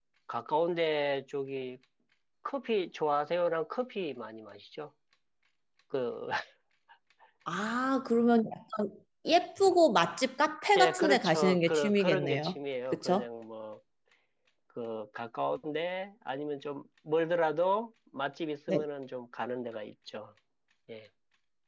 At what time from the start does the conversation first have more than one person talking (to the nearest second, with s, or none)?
11 s